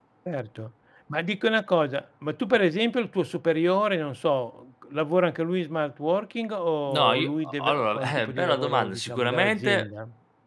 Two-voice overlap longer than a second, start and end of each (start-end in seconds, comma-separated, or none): 6.9-9.9